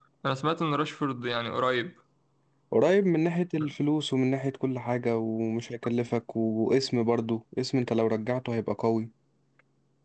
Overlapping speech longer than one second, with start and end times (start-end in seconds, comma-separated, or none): none